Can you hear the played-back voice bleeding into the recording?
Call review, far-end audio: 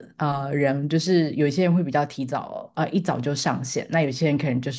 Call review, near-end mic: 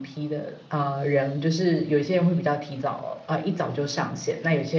Yes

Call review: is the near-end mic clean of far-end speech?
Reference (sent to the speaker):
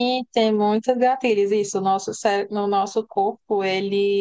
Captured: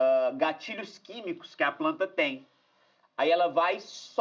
Yes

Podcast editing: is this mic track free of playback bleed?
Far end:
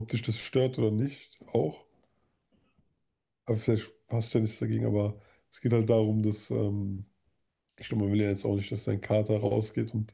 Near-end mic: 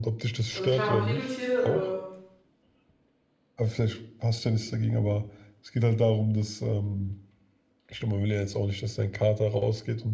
No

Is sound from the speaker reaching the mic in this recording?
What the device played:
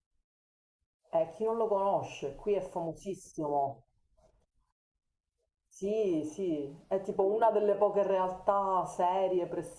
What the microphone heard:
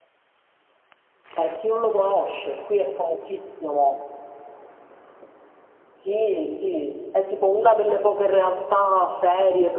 Yes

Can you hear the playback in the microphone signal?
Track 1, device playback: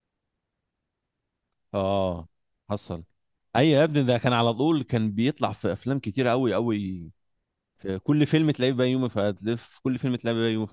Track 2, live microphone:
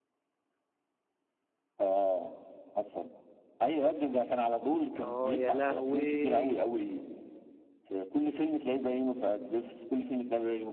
Yes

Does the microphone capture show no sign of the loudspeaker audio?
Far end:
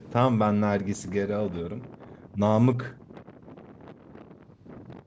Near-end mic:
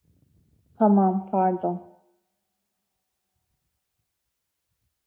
Yes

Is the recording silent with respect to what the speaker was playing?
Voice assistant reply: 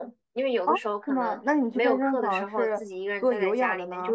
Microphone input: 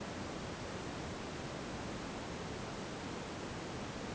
Yes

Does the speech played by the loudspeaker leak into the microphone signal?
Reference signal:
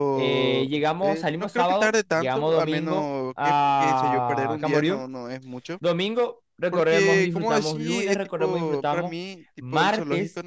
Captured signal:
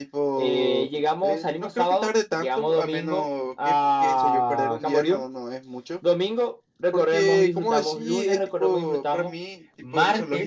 Yes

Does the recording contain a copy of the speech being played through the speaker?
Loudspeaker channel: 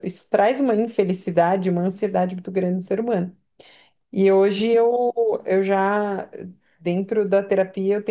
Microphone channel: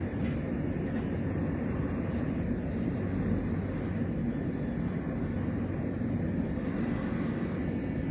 No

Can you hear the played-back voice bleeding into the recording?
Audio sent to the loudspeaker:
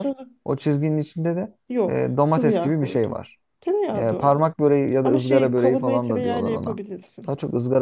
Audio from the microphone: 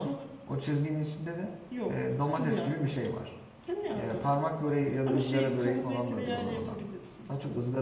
Yes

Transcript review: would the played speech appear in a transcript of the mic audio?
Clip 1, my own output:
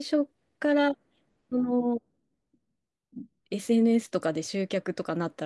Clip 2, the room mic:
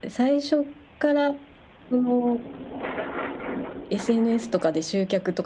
Yes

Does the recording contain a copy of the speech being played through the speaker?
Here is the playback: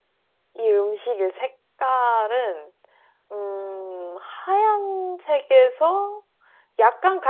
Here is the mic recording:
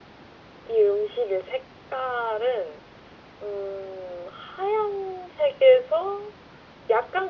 Yes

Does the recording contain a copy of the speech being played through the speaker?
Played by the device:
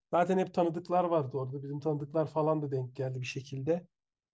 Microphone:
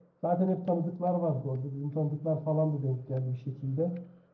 Yes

